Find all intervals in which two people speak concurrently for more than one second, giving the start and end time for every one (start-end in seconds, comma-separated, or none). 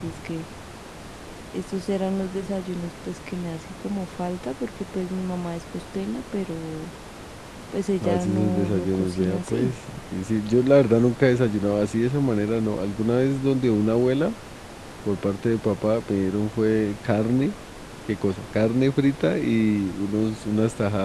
8.0-9.7